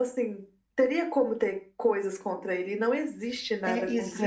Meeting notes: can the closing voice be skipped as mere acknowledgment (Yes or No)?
No